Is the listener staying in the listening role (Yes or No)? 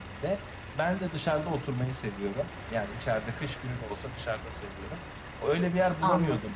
Yes